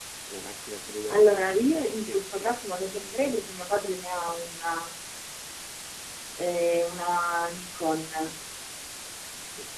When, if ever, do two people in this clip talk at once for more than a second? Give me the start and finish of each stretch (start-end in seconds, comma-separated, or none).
1.1-3.5